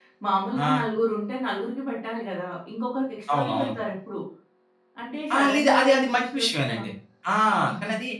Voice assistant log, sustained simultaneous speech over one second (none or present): present